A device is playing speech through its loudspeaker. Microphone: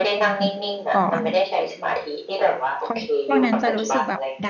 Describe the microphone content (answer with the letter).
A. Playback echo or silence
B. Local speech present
B